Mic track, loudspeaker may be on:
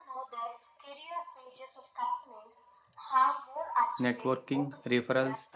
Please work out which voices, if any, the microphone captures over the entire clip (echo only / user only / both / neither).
both